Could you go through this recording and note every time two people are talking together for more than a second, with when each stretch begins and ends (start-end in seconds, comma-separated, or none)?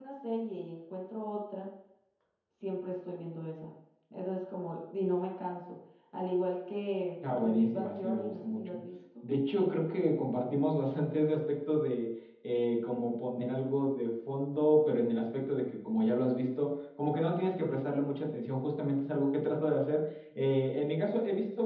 7.4-8.8